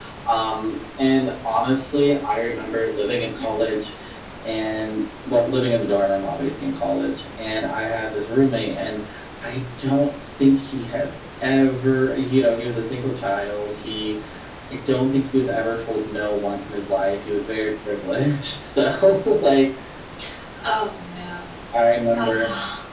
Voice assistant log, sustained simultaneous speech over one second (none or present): none